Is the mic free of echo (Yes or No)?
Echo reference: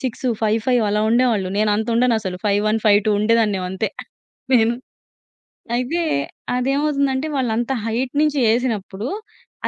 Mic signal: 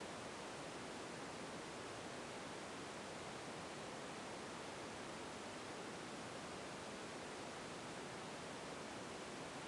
Yes